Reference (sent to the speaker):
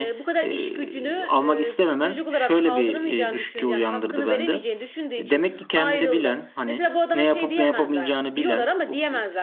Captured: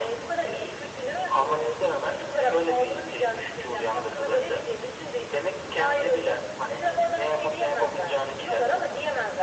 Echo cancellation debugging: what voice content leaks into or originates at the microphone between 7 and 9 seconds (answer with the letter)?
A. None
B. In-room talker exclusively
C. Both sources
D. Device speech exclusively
D